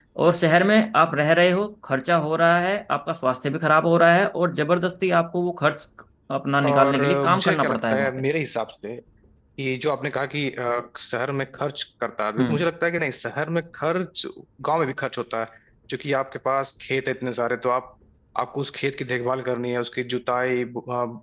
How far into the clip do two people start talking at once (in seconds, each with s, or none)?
6.7 s